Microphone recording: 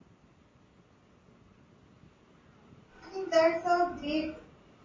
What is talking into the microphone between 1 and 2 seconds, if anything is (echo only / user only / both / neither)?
neither